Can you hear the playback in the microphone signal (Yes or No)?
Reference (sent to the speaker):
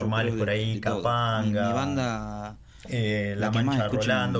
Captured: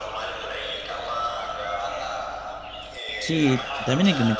Yes